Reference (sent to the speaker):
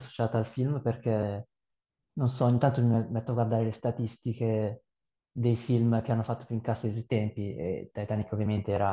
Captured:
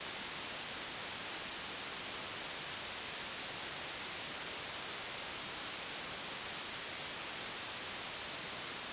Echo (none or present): none